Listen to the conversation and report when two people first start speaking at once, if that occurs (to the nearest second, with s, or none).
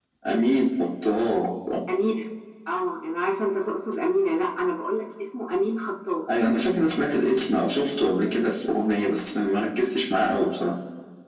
none